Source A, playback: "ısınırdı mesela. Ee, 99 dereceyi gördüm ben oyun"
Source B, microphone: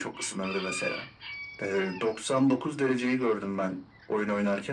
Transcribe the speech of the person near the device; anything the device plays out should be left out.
none

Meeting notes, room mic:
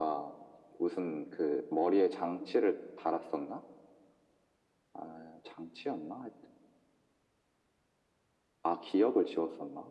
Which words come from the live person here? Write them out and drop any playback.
none

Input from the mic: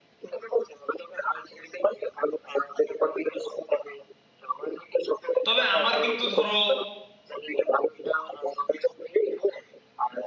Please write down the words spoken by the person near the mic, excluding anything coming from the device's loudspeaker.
তবে আমার কিন্তু ধরো

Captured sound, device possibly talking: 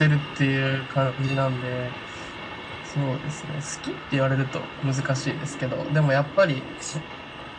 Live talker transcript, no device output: none

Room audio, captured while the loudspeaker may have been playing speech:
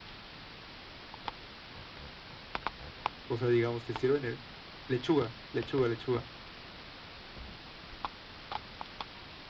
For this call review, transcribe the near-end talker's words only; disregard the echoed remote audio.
o sea, digamos, te sirven el- lechuga, lechuga, lechuga

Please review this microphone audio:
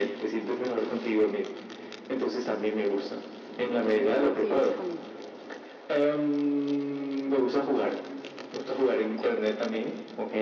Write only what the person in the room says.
Sí, eso también.

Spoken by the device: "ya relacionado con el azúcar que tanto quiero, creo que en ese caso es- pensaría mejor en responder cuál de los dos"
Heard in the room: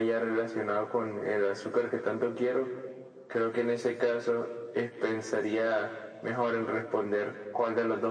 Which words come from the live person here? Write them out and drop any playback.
none

